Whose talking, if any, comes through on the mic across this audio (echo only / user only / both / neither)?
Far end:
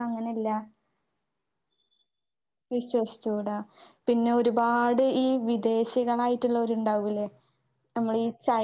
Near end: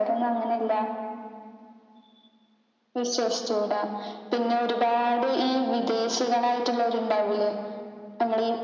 echo only